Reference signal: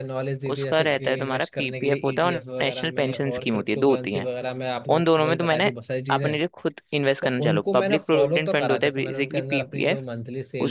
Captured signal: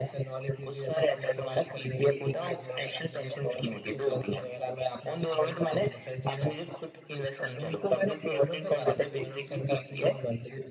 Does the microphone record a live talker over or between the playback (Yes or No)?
No